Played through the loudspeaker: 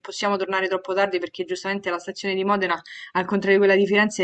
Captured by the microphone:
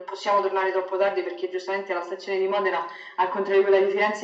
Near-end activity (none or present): none